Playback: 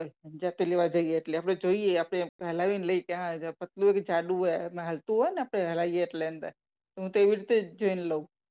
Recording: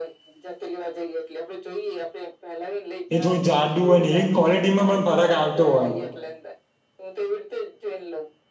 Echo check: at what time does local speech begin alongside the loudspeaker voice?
3 s

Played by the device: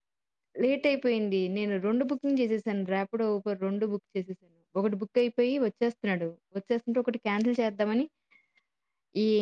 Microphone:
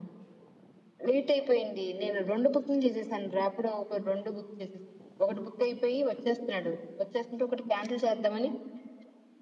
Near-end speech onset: none

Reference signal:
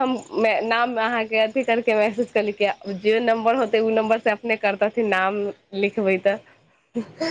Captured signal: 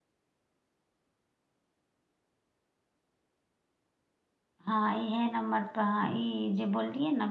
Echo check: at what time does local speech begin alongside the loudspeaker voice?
5 s

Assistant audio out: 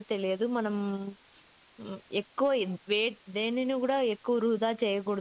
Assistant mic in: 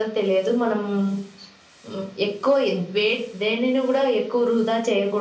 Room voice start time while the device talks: none

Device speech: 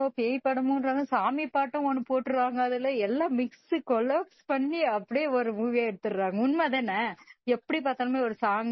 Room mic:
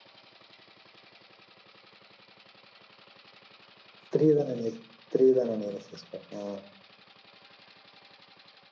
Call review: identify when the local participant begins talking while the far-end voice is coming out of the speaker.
4 s

